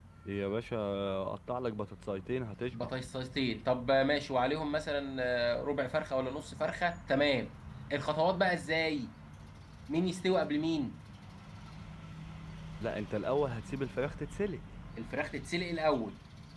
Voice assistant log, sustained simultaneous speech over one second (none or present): none